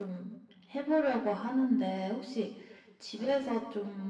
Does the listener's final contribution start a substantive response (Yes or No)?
No